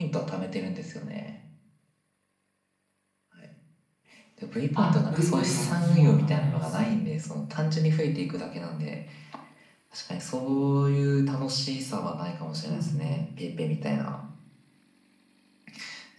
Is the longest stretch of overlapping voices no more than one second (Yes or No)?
No